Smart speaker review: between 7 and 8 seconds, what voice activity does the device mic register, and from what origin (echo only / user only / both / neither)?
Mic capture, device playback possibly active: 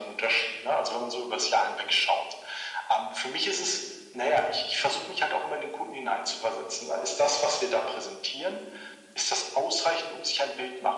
echo only